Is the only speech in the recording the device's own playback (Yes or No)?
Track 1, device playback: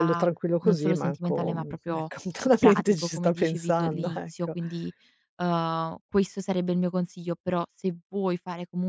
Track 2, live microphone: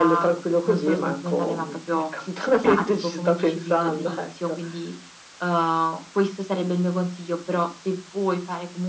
Yes